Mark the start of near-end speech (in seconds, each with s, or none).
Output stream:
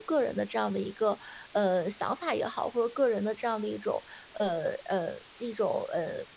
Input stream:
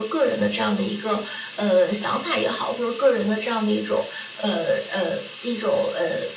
none